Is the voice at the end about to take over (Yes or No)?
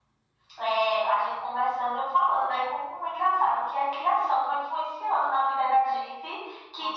No